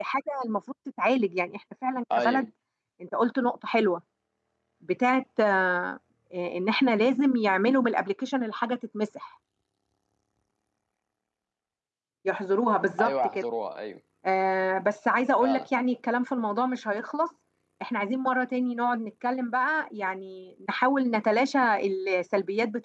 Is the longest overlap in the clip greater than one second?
No

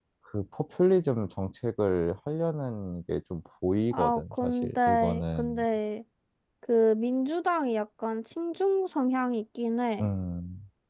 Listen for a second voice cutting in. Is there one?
Yes, from 3.9 s

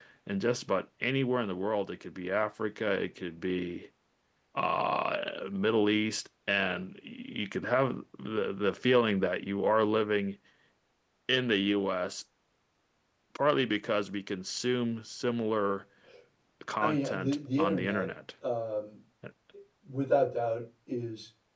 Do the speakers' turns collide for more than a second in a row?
Yes, from 16.8 s

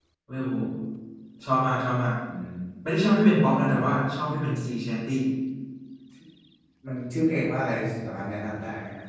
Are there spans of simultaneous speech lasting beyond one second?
No

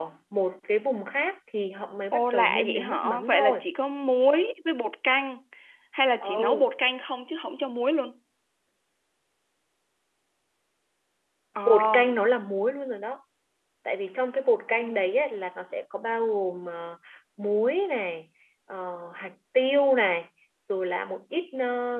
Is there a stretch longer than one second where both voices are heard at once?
Yes, from 2.1 s

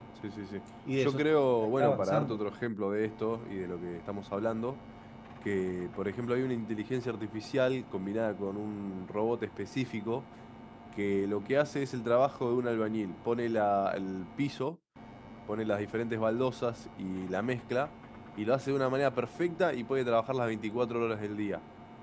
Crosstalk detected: Yes, from 1.0 s

